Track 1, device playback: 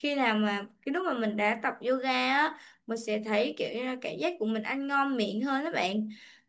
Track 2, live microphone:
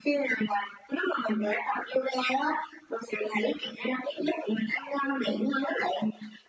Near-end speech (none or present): none